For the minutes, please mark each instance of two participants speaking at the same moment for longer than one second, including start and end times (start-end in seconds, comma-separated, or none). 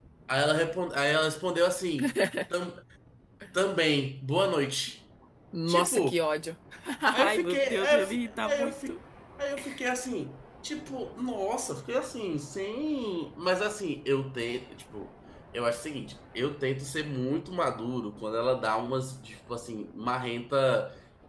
7.2-8.9